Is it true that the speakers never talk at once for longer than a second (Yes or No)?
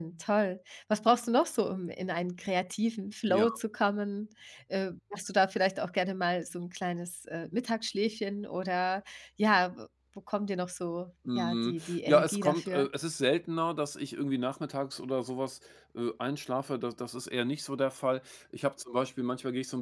No